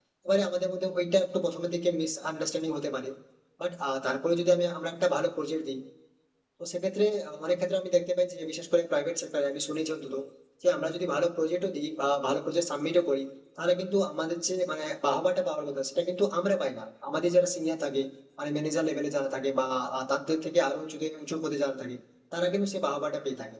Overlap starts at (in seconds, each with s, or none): none